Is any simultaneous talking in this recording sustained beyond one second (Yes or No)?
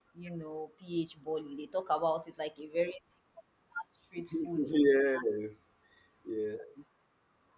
No